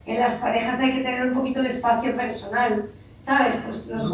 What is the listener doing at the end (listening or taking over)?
listening